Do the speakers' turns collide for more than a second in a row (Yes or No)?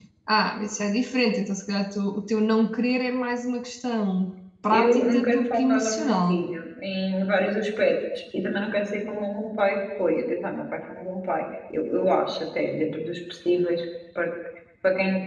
Yes